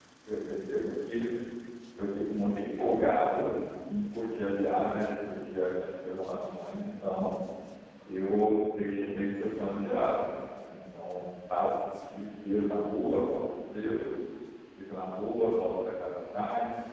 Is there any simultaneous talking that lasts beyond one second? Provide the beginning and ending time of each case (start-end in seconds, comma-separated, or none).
none